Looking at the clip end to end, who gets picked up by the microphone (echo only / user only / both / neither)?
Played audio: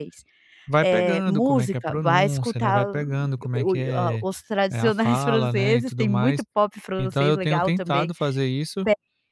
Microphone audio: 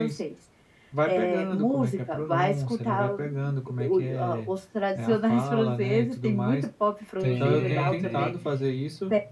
both